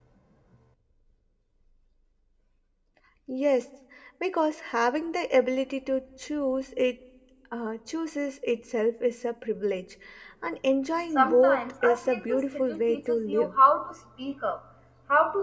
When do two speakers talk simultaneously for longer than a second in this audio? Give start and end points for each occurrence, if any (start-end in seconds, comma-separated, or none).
11.2-13.6